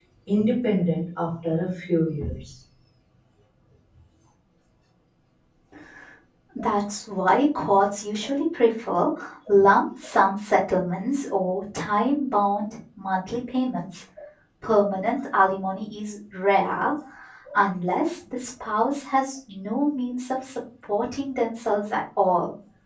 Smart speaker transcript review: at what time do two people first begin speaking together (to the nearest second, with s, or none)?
none